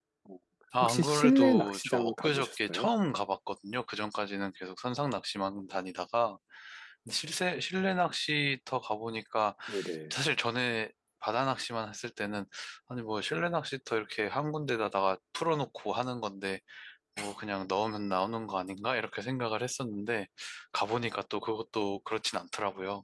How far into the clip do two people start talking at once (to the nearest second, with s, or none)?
1 s